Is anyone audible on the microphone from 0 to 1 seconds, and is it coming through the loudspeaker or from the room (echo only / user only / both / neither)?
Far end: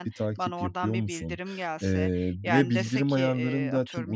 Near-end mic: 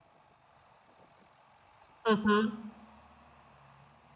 neither